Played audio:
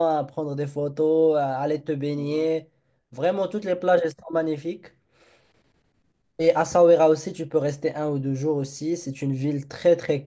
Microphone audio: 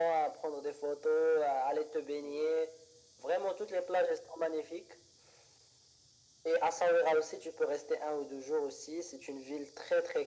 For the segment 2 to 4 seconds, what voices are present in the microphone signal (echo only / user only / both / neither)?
echo only